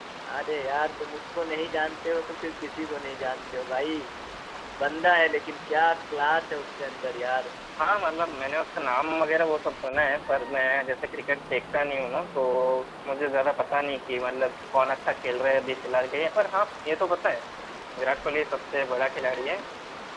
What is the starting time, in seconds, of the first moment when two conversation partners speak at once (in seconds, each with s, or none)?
none